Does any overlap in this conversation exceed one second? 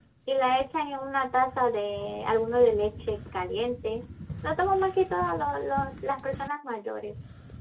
No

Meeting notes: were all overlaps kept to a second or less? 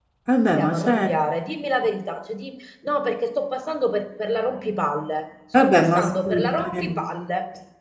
No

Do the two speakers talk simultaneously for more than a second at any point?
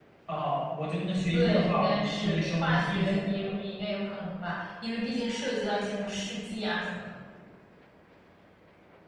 Yes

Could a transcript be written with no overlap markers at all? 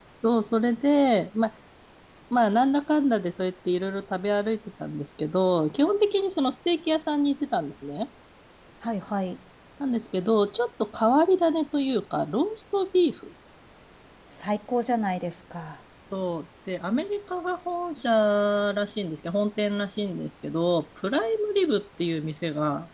Yes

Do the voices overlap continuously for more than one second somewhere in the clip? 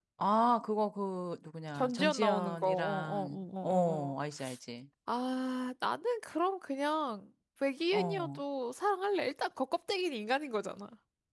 Yes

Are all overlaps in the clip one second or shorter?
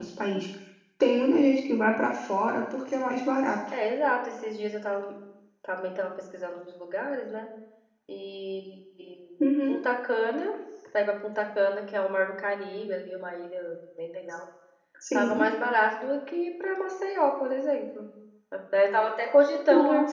Yes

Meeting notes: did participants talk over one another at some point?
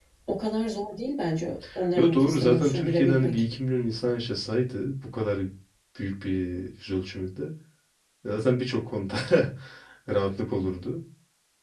Yes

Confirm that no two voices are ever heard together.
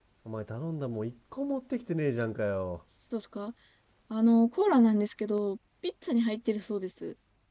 Yes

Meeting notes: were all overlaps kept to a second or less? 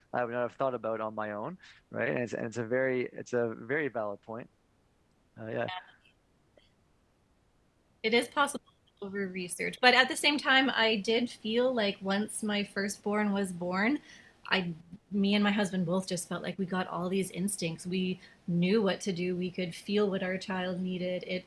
Yes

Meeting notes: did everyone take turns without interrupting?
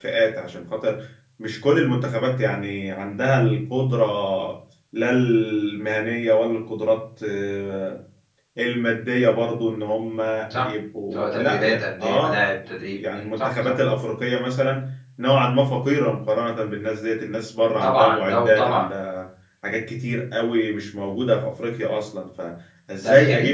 No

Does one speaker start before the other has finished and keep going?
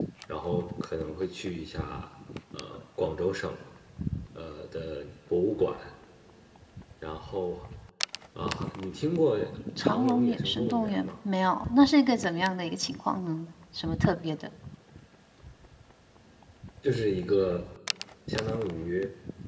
Yes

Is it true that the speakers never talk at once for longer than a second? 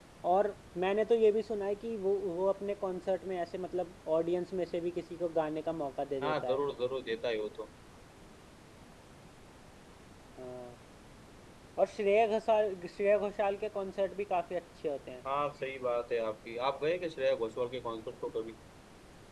Yes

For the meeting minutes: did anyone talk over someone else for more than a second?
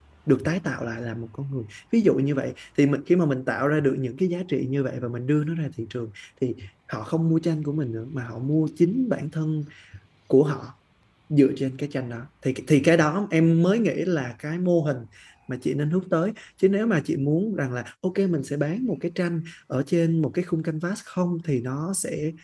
No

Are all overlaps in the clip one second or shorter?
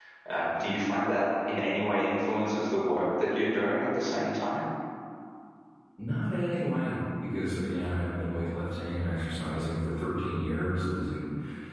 Yes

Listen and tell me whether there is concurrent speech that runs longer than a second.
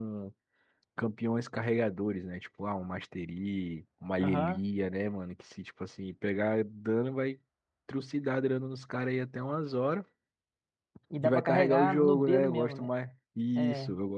Yes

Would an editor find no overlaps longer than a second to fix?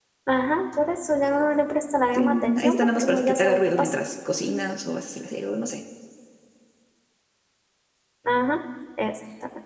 No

